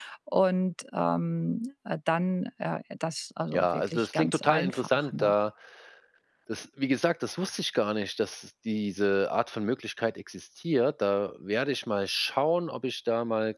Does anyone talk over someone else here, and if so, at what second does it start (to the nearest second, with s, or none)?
4 s